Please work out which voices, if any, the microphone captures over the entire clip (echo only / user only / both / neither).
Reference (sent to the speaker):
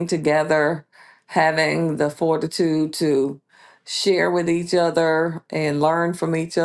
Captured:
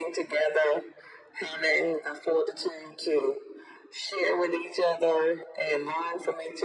echo only